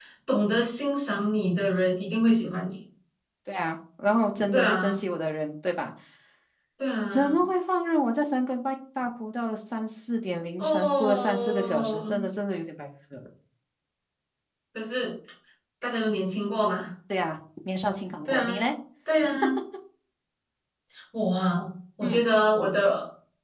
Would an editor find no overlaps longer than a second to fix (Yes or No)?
No